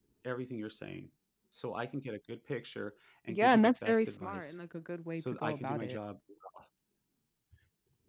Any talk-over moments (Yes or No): Yes